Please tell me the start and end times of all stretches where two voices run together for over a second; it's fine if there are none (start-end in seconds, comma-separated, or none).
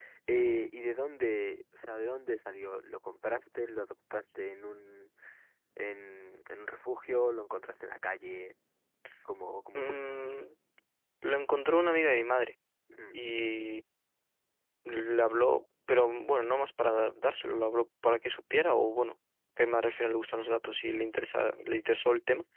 none